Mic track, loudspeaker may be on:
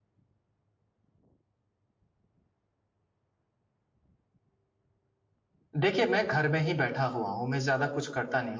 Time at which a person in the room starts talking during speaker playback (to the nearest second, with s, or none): 6 s